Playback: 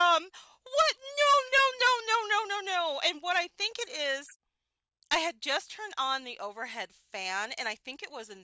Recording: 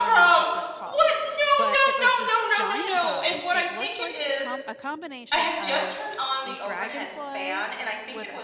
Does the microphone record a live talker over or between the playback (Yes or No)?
Yes